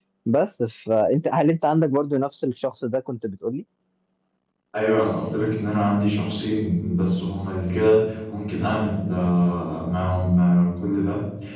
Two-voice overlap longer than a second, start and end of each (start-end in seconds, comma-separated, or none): none